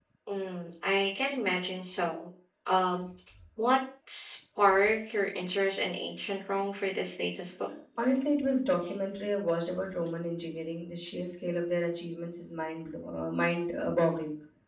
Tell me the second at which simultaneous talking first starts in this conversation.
none

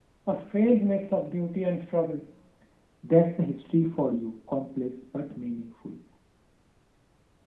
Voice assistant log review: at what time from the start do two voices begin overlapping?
none

